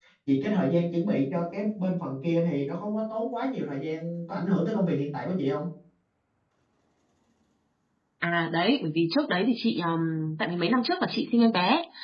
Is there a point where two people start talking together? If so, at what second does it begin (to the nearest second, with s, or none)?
none